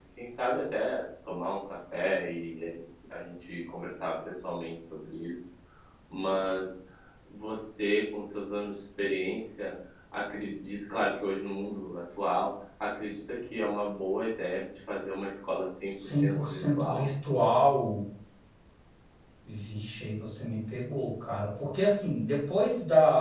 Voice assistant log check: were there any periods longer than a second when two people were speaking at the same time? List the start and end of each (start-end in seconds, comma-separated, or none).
15.9-17.1